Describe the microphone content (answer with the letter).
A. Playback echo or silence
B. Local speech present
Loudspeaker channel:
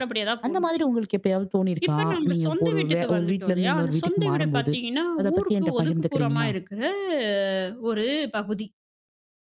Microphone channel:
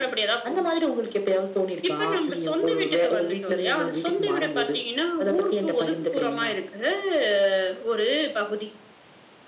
A